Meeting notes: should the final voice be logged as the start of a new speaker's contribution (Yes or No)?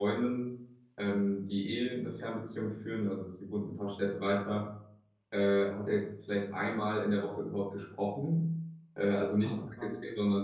No